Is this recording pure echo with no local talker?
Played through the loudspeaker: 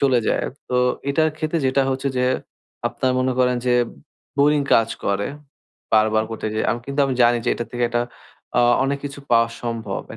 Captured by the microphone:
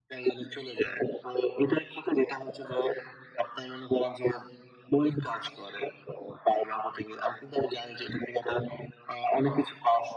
Yes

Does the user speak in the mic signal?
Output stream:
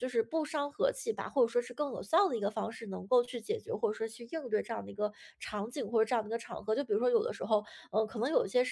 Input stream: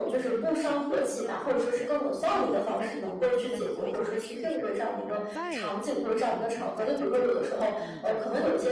Yes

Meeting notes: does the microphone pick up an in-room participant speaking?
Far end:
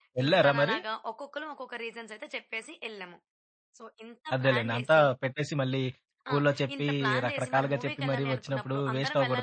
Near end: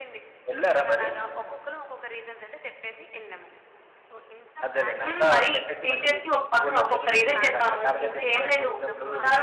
Yes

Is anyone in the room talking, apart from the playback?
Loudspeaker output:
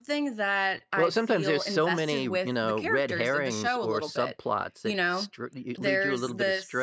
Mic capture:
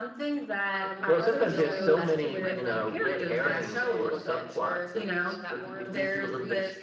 Yes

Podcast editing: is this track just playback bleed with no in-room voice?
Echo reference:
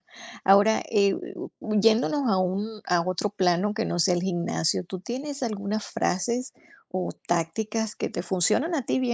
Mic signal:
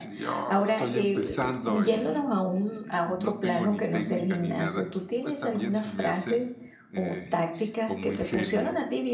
No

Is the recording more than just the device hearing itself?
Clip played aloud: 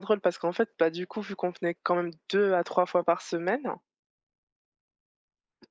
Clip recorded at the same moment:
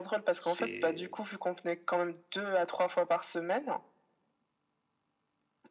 Yes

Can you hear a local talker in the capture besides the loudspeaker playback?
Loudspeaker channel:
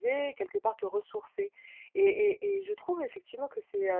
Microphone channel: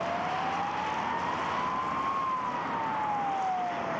No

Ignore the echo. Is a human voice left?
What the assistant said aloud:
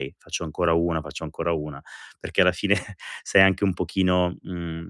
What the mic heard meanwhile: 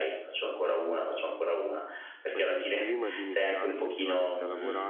Yes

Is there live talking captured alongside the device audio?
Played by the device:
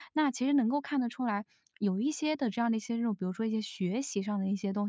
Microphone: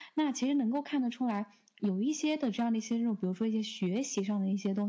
No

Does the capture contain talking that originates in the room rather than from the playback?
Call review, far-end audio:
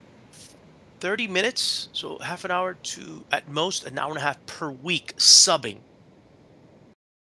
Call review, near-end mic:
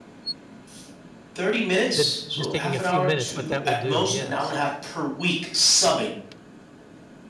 Yes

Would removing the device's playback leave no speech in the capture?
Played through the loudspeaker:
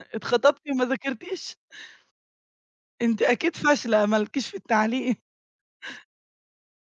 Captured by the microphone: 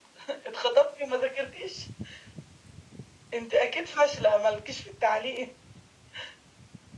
Yes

